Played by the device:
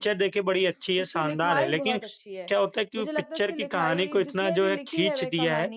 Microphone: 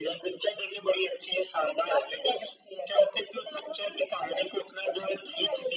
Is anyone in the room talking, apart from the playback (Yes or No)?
No